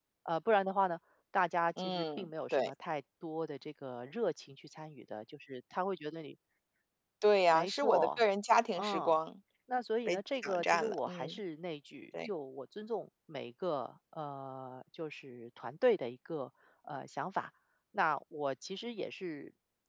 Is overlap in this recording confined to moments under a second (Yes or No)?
No